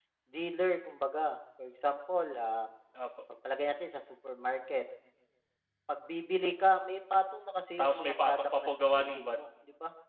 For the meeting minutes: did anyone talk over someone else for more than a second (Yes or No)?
Yes